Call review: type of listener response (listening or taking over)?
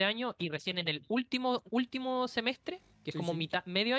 listening